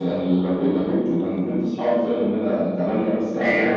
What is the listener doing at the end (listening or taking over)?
listening